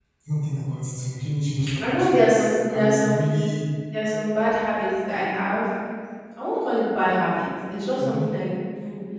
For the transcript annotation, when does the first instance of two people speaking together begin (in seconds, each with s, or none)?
1.8 s